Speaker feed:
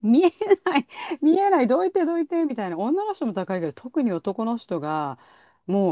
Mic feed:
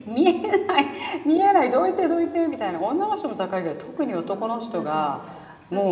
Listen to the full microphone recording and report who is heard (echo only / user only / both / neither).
both